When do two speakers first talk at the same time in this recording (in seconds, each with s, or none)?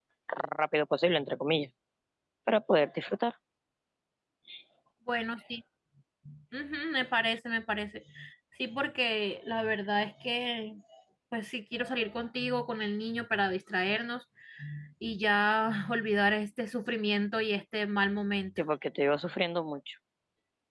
none